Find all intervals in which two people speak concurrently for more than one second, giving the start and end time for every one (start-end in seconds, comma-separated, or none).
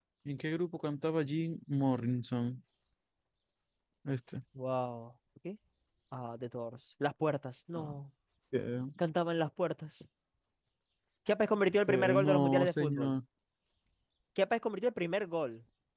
11.9-13.2